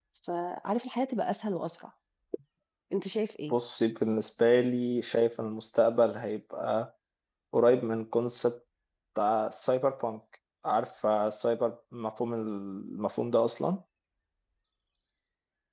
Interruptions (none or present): none